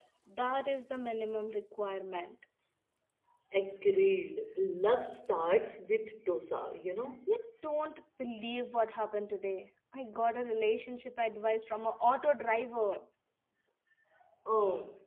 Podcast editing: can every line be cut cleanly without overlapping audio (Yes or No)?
Yes